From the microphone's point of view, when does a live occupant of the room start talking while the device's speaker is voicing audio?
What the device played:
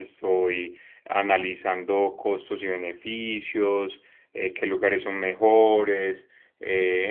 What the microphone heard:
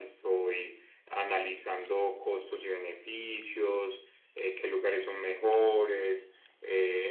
none

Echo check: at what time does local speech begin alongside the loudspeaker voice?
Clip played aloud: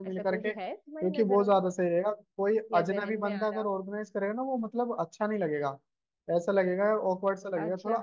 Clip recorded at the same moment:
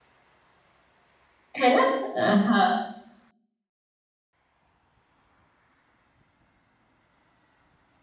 1.6 s

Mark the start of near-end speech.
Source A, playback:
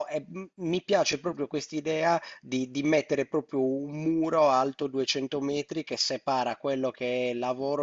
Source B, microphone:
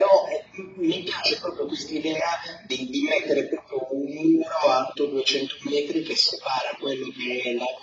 none

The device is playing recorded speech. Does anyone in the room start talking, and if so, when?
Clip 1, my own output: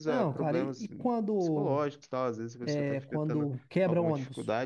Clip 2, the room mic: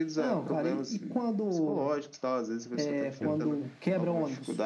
3.1 s

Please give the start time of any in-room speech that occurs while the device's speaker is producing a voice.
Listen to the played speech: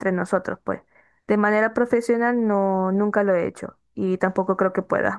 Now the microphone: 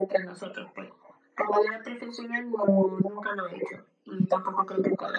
none

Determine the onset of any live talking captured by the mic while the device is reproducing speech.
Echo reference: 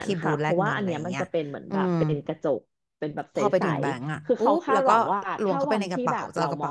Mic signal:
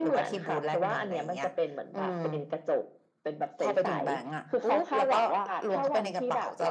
none

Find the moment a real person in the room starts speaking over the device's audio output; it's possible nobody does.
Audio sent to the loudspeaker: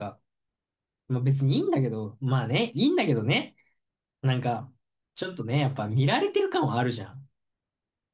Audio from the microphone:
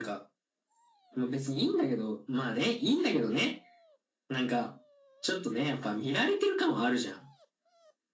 none

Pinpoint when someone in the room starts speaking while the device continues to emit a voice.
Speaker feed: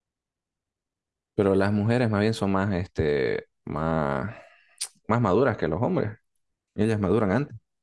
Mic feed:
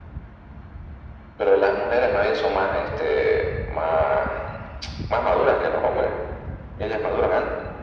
none

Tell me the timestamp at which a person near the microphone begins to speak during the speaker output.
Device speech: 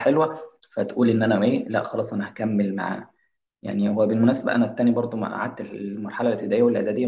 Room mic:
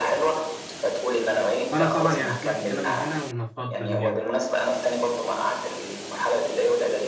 1.7 s

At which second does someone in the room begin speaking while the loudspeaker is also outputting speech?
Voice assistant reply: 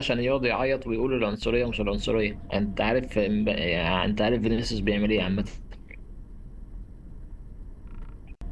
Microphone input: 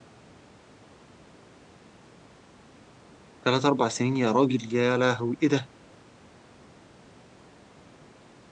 3.4 s

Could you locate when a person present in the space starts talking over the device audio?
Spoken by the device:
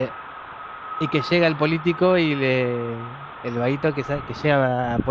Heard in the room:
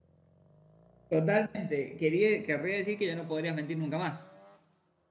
1.1 s

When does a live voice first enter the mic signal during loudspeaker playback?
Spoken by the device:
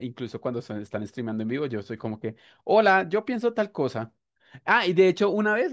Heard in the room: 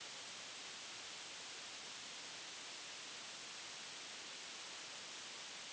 none

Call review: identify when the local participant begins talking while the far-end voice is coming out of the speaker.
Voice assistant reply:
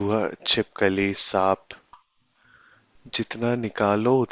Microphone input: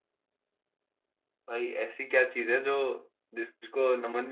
1.5 s

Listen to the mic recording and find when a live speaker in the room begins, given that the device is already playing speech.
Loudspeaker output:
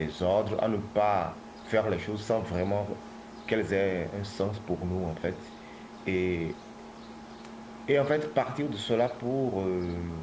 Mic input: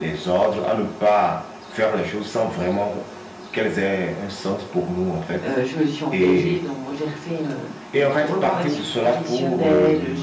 5.4 s

